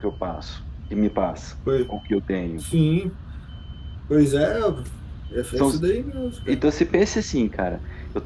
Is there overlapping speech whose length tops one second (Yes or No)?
No